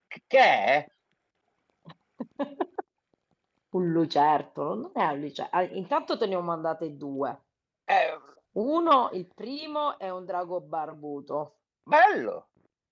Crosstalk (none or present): none